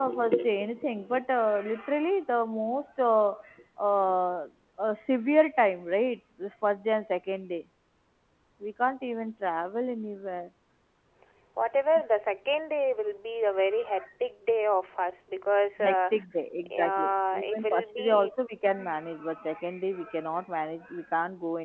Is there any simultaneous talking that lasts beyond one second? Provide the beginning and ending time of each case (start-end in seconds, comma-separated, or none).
16.7-18.3